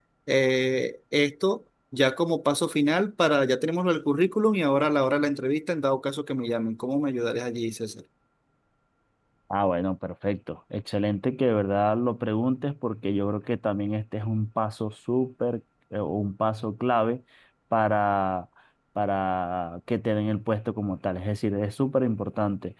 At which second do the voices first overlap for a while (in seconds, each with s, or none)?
none